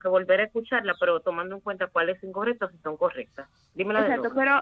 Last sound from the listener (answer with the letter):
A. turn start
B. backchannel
A